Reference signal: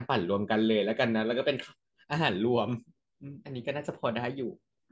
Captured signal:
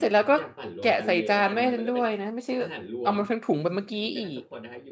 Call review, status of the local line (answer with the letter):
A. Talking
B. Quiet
A